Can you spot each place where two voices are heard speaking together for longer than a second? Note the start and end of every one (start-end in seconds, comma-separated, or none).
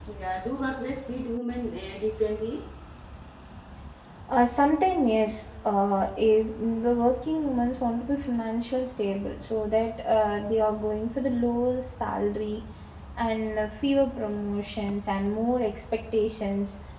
none